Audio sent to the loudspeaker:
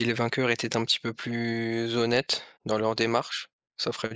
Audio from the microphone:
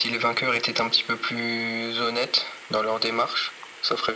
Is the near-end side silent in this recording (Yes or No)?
Yes